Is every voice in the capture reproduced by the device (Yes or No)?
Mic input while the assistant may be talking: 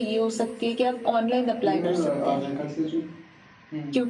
No